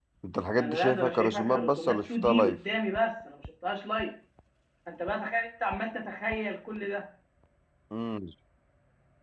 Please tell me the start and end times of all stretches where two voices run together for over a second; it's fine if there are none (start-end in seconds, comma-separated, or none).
0.6-2.6